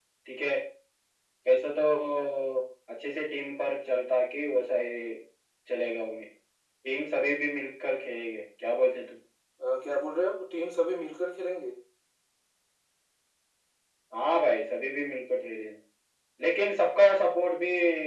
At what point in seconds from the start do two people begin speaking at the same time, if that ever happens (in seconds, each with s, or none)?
none